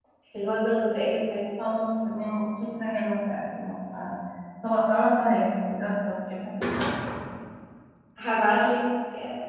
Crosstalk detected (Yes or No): No